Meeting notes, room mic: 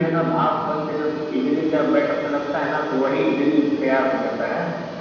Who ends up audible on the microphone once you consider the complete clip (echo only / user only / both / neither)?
echo only